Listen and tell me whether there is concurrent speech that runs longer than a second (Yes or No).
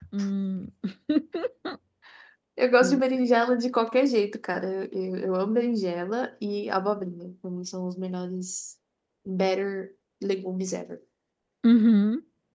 No